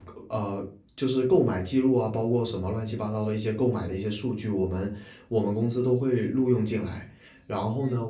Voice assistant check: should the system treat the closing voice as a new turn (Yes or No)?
No